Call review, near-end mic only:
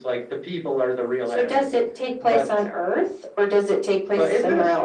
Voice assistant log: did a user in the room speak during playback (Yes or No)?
No